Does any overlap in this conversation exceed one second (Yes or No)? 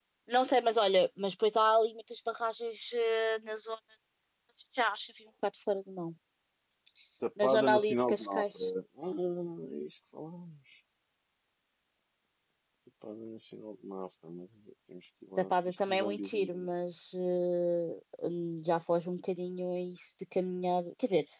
Yes